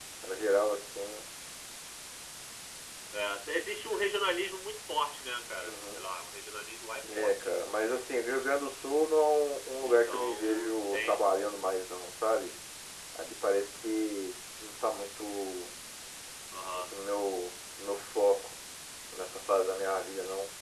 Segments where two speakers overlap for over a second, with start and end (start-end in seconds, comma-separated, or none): 9.8-11.2